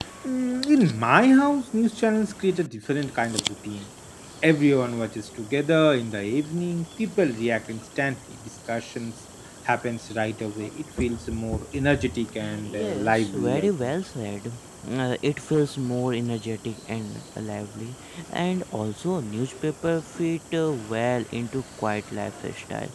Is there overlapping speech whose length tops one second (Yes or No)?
Yes